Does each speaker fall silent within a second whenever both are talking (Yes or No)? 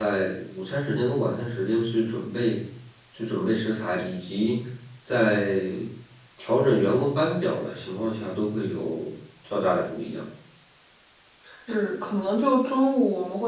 Yes